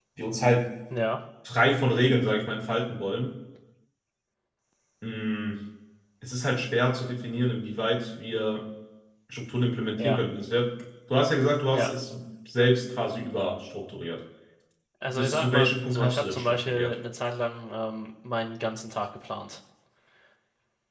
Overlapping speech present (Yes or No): Yes